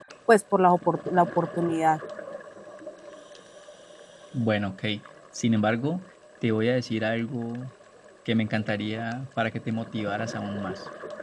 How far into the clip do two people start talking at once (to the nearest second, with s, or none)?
none